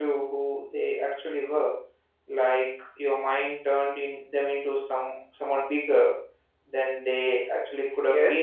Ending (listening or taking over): taking over